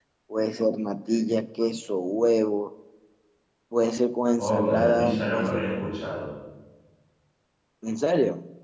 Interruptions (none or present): present